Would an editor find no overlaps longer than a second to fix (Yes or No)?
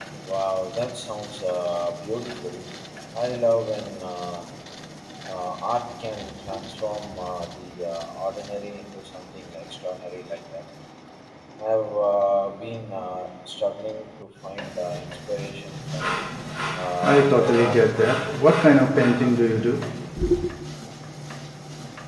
No